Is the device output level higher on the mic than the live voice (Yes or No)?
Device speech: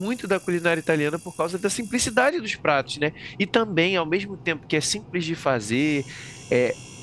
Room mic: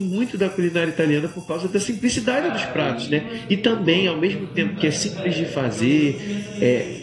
Yes